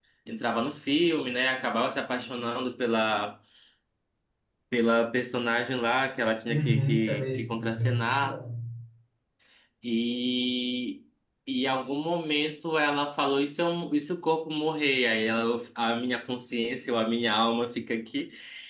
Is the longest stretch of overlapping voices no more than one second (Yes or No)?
No